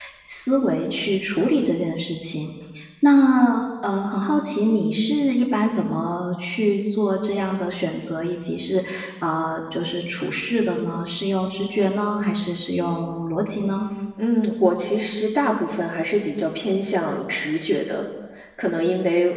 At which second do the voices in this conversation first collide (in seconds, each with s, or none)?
none